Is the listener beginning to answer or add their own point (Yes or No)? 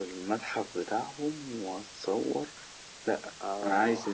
No